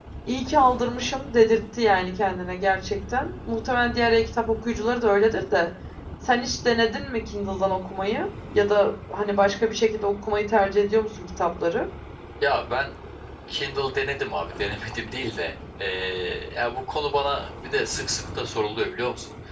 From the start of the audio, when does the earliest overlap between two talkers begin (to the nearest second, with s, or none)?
none